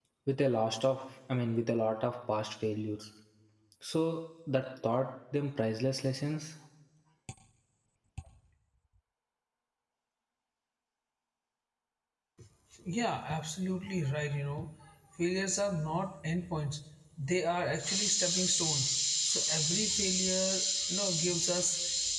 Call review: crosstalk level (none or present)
none